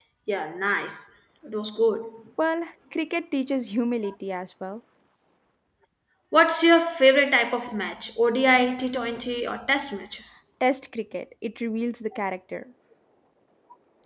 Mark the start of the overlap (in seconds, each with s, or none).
none